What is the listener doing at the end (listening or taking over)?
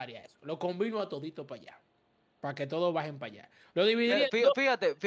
taking over